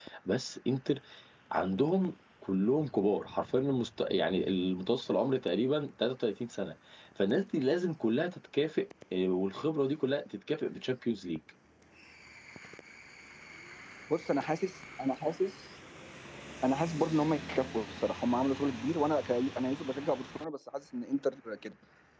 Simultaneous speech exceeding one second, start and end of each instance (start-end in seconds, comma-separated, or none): none